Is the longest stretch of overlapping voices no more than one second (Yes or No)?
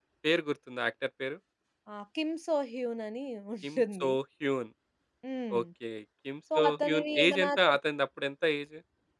No